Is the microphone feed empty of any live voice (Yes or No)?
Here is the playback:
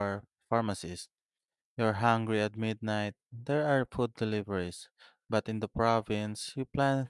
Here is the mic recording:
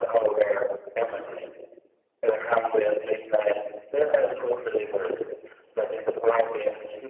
Yes